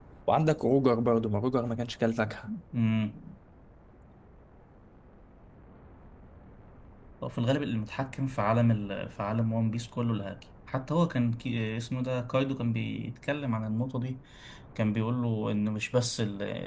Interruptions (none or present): none